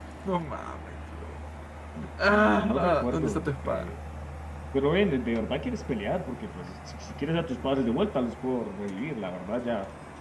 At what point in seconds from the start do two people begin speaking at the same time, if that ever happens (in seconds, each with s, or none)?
2.3 s